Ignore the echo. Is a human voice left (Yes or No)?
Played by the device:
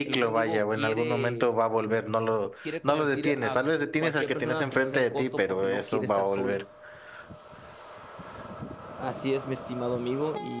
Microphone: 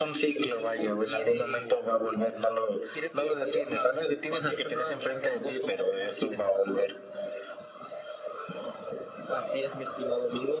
No